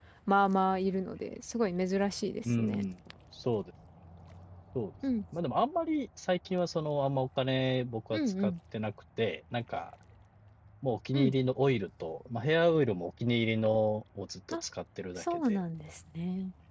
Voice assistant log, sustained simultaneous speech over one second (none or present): none